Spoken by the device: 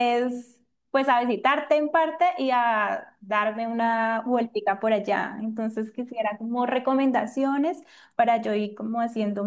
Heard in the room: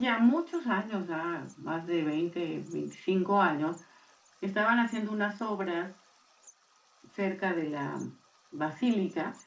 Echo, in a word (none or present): none